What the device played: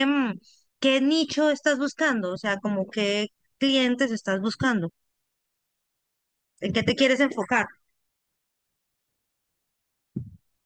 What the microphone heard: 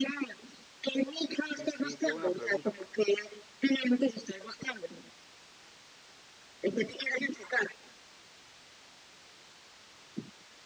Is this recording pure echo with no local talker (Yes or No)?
No